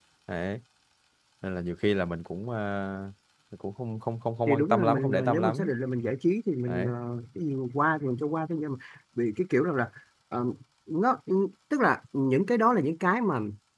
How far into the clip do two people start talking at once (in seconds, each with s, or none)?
4.5 s